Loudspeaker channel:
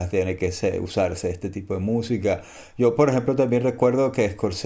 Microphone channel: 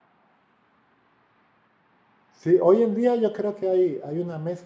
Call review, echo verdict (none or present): none